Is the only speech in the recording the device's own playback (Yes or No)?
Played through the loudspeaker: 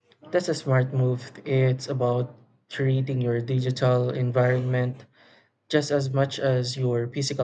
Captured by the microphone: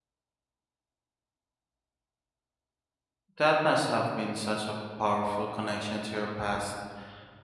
No